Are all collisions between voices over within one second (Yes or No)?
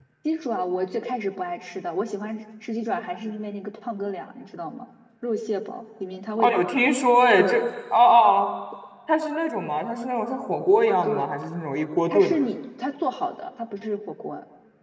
Yes